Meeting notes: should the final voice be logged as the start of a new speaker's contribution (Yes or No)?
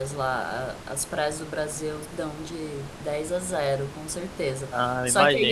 No